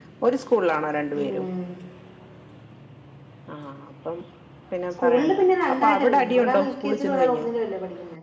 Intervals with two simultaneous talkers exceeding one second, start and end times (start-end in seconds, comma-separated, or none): 5.0-7.5